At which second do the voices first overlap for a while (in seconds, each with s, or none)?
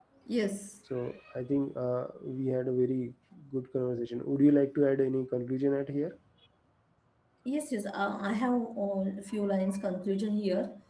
none